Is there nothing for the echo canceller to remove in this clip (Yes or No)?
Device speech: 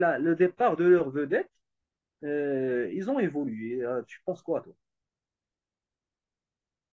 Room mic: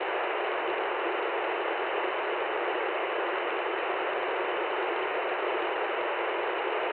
Yes